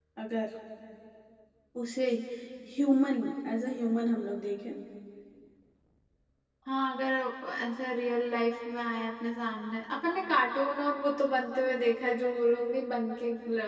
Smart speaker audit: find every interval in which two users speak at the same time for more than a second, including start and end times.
none

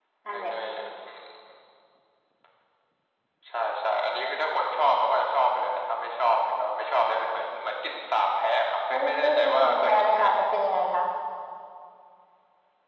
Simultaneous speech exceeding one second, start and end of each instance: 8.9-10.4

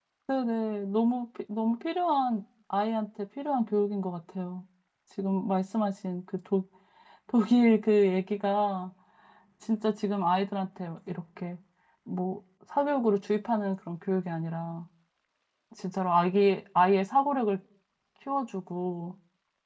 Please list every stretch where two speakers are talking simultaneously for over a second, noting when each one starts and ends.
none

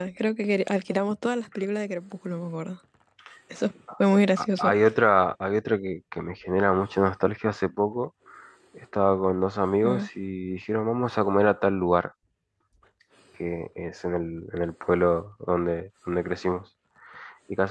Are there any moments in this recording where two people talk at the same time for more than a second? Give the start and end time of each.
none

